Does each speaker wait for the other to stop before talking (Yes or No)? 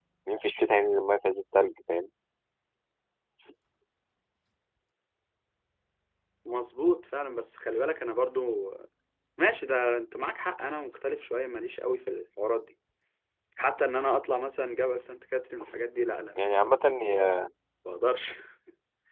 Yes